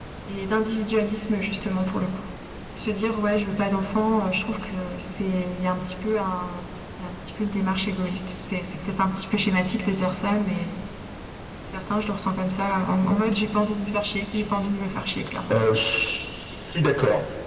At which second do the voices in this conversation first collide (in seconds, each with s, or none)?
none